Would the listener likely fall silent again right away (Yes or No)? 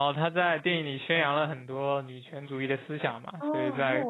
No